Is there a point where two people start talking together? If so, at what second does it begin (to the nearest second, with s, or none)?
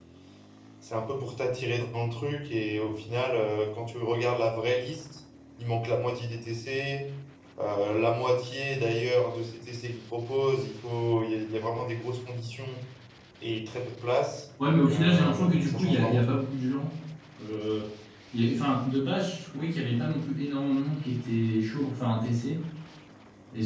15 s